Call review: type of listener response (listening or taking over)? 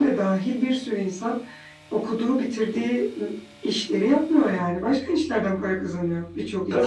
taking over